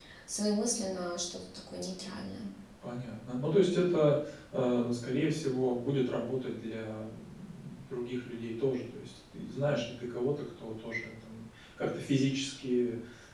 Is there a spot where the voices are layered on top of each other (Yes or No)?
No